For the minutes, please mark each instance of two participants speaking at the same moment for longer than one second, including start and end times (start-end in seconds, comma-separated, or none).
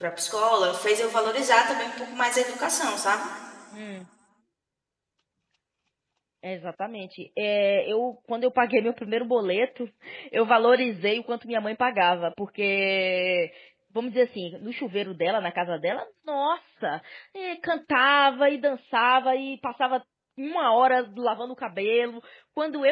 none